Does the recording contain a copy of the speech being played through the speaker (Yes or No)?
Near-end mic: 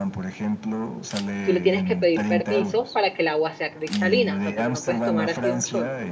Yes